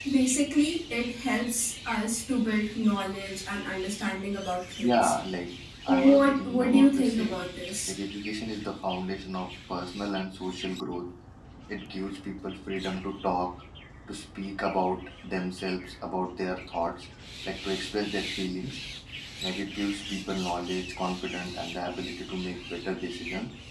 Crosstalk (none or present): present